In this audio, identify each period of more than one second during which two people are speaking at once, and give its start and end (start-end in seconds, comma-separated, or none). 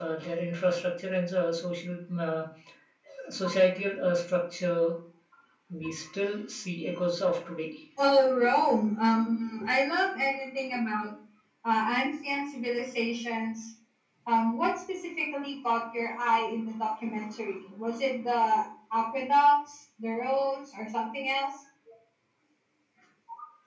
none